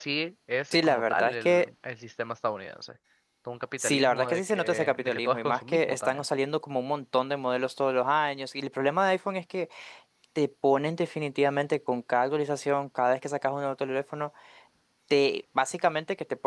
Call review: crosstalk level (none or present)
present